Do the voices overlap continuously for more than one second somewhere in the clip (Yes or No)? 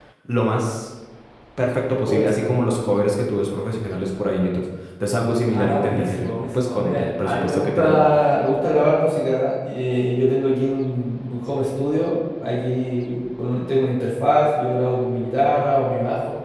Yes